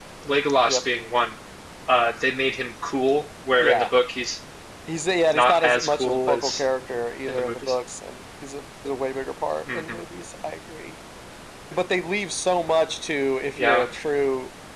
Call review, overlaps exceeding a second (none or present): present